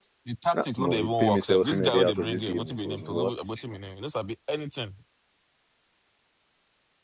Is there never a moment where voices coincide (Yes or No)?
No